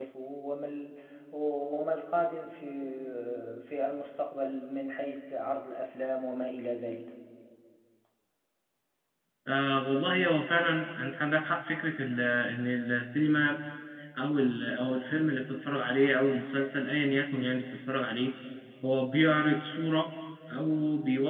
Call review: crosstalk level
none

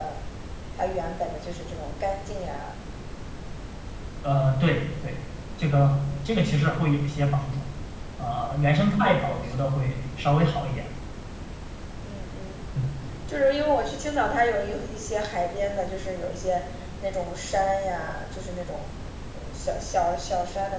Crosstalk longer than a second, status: none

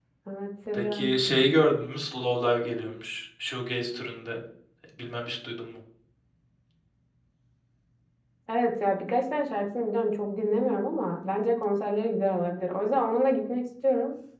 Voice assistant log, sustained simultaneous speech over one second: none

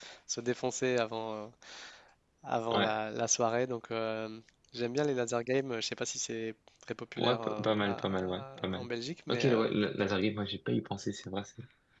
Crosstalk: present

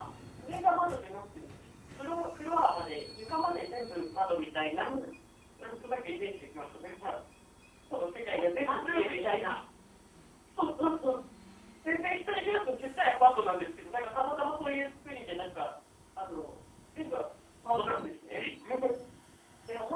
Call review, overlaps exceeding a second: present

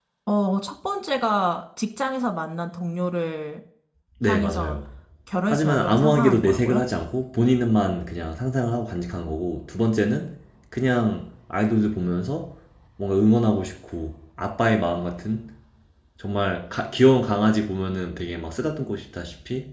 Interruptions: present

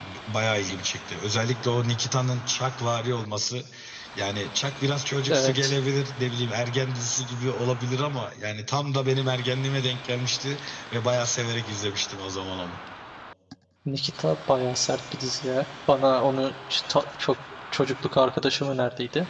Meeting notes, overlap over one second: none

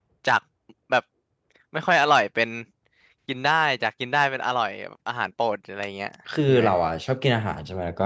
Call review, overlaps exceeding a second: none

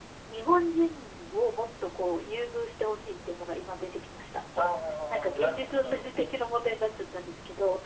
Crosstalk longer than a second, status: present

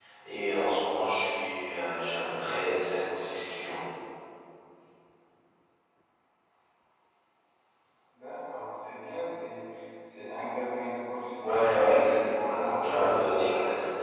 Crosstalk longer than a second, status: present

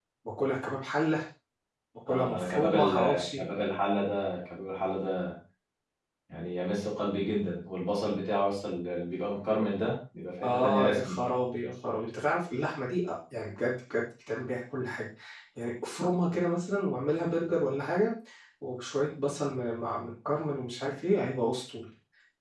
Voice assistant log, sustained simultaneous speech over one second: present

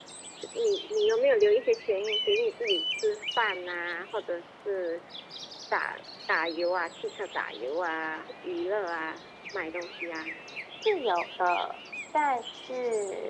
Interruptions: none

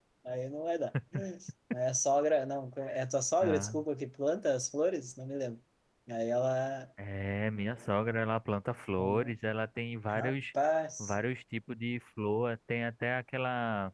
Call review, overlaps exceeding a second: none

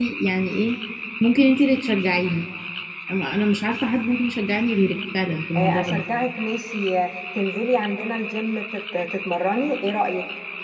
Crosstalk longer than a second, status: none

